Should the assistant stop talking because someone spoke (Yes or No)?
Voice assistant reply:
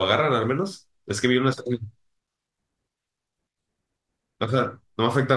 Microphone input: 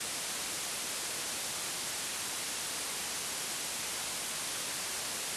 No